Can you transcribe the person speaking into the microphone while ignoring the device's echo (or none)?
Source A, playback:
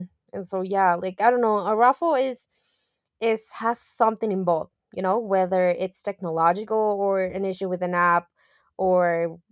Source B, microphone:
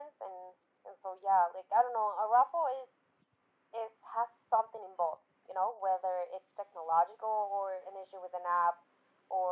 none